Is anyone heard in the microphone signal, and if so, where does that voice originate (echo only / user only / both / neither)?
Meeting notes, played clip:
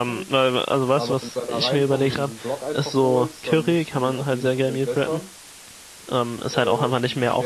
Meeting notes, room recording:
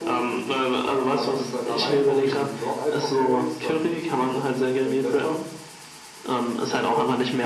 echo only